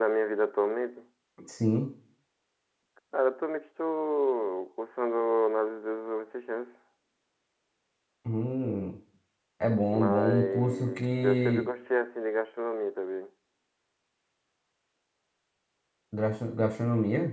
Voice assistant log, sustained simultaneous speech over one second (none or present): present